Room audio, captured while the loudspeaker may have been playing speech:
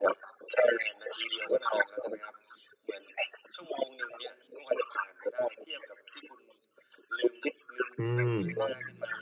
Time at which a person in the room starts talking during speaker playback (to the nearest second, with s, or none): 8 s